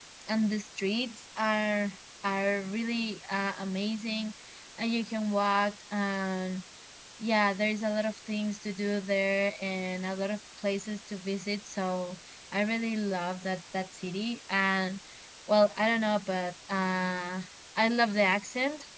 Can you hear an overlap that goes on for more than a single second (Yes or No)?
No